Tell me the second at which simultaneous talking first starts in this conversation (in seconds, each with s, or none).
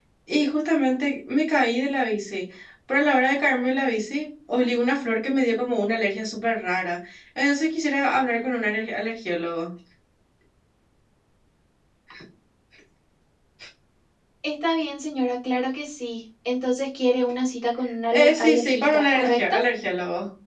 18.1 s